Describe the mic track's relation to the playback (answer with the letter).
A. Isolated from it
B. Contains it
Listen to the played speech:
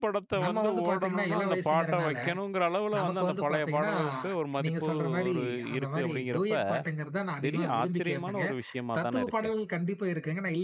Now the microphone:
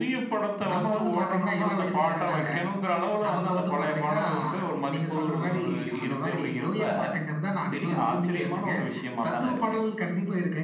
B